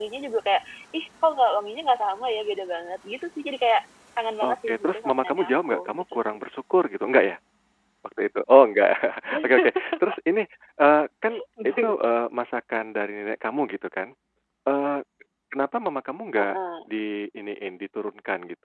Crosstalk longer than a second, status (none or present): present